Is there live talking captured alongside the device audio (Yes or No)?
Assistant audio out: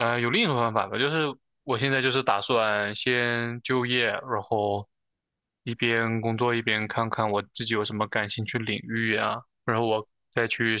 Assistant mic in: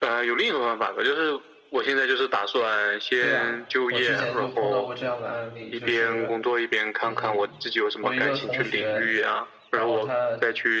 Yes